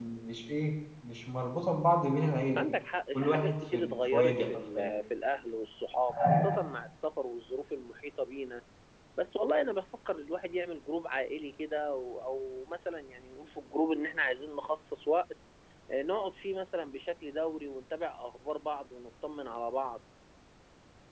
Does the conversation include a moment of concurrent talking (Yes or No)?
Yes